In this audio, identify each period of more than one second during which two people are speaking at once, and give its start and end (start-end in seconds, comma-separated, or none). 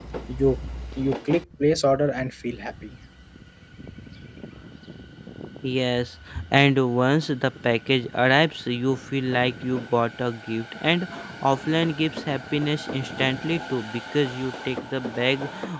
none